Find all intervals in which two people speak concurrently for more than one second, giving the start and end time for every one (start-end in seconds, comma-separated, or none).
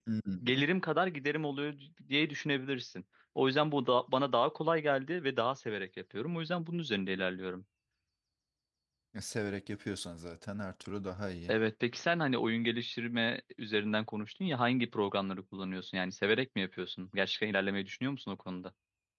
none